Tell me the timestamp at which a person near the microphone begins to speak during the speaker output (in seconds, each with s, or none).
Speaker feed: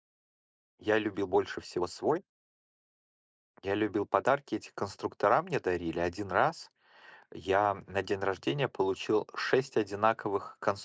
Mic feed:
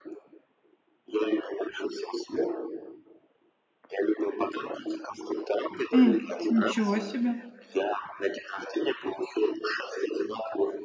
5.9 s